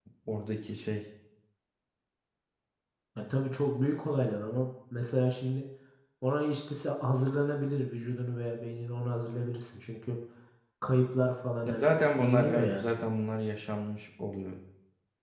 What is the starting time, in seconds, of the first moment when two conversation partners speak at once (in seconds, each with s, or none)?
11.6 s